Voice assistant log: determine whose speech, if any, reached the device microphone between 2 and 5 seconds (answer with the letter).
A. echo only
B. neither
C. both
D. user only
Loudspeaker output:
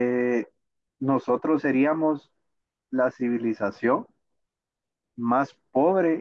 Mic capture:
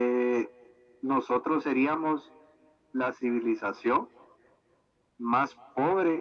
A